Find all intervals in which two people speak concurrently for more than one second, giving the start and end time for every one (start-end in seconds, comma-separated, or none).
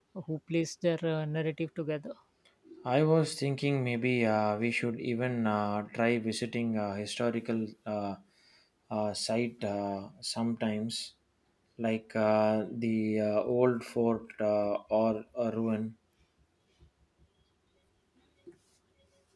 none